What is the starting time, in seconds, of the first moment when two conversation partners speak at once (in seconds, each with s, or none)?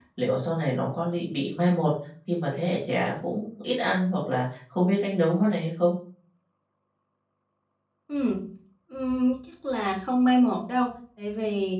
none